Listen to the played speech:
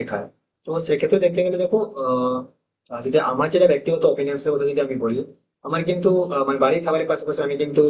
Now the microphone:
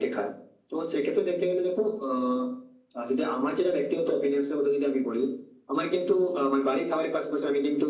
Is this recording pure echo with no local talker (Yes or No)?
Yes